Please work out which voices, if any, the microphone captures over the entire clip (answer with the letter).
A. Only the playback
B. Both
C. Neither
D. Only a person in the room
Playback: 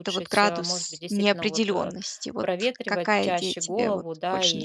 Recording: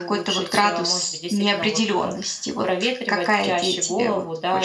A